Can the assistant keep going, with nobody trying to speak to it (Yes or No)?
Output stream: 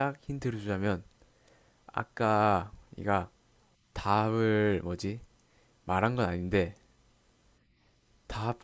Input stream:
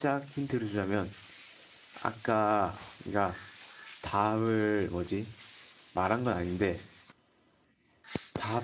Yes